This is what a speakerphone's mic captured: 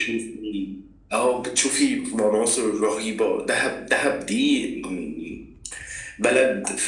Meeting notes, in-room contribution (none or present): none